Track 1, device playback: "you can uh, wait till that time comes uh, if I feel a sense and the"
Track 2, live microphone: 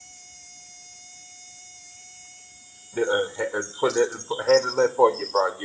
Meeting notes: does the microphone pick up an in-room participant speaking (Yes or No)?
Yes